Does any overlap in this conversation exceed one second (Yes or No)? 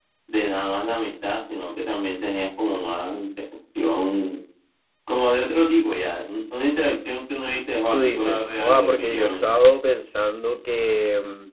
Yes